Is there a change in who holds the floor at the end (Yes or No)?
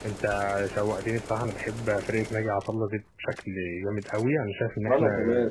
No